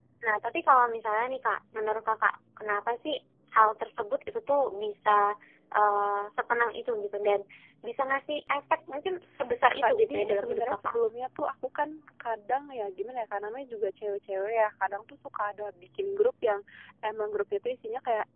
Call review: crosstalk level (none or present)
present